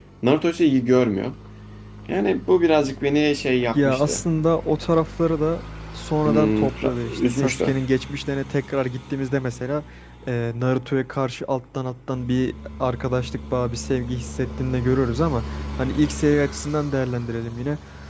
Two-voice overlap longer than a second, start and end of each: 6.2-7.7

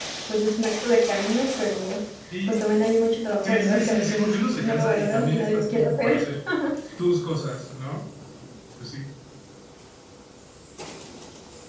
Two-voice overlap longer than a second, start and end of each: 3.4-6.2

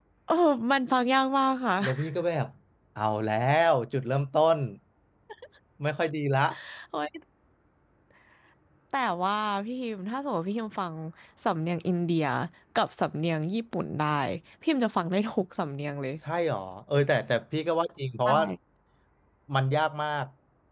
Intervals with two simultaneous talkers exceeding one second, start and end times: none

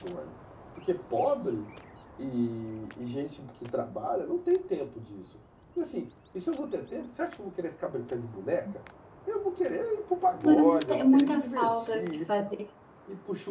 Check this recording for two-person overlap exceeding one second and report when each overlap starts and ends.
10.4-12.4

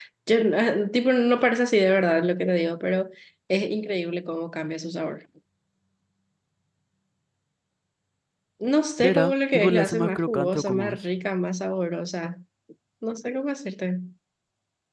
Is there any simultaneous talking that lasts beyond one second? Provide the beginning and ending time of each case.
9.0-11.0

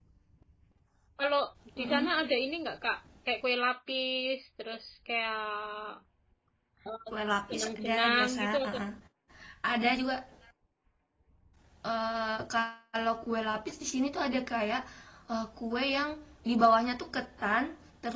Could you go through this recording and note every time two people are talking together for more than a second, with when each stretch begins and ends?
7.5-8.8

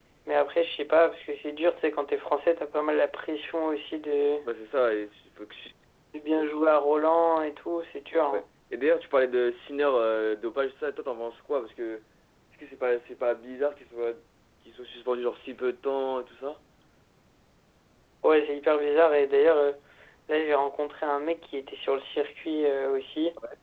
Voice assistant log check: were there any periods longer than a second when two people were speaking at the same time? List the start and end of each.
none

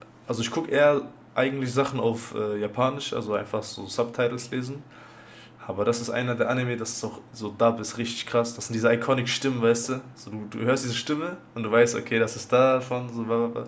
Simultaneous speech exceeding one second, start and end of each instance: none

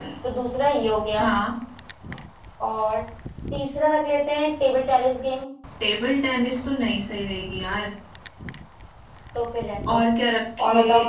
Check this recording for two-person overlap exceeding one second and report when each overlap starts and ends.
none

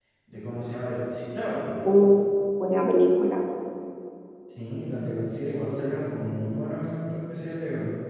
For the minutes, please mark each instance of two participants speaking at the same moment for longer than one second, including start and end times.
none

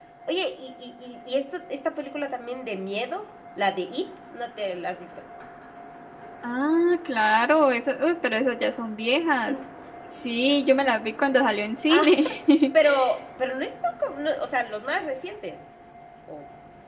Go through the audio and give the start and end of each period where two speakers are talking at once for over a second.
none

